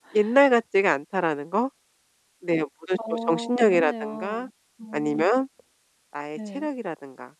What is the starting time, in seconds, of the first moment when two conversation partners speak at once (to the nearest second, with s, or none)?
3 s